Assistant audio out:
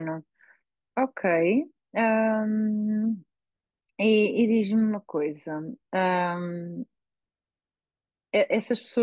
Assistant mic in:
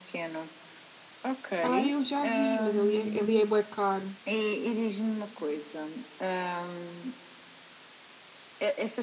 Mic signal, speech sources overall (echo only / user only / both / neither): both